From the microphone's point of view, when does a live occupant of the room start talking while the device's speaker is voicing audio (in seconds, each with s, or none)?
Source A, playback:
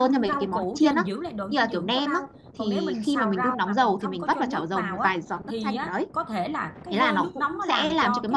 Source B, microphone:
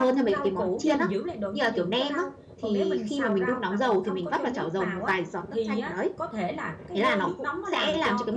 none